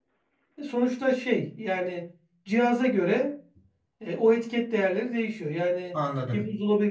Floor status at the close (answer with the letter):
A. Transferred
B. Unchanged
B